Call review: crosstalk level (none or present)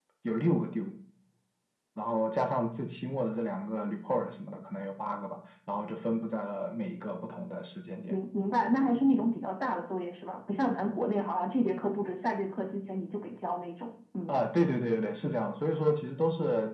none